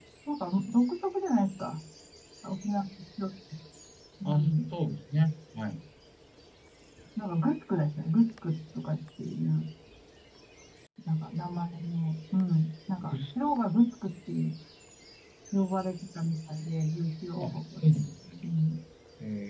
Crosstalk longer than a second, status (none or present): none